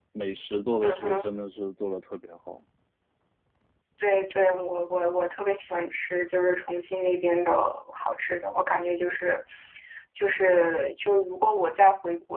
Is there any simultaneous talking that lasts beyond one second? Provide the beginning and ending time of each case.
none

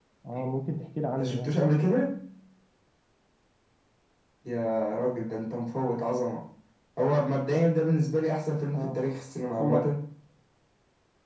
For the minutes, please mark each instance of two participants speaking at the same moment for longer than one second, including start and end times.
none

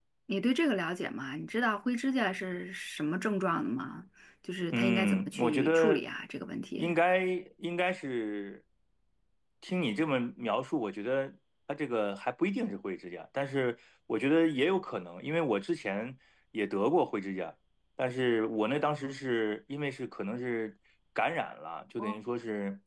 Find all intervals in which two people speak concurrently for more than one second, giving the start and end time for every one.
4.7-6.0

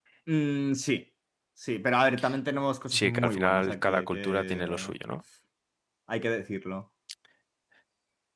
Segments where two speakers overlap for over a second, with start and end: 2.9-5.0

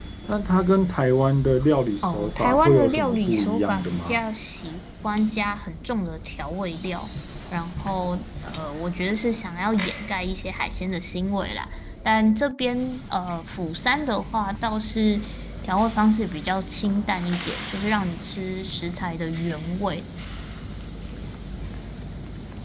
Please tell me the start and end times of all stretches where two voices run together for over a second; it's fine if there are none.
2.1-4.2

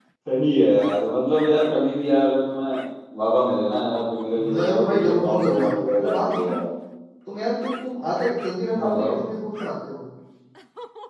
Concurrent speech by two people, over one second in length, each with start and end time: 4.5-6.5

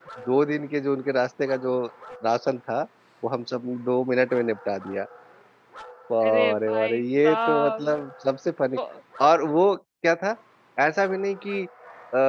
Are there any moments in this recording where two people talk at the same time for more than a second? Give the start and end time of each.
6.3-7.9

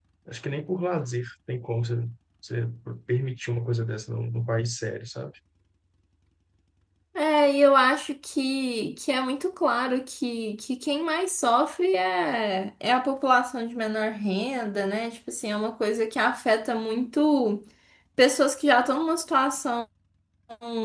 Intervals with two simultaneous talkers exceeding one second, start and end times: none

